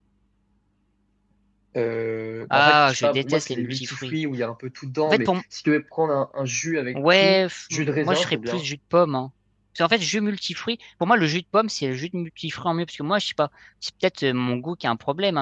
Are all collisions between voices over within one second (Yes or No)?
No